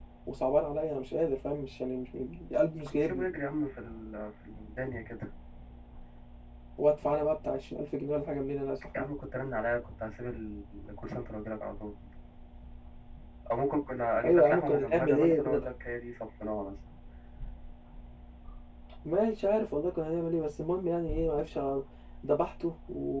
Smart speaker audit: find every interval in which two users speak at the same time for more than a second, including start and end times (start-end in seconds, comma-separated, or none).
14.2-15.6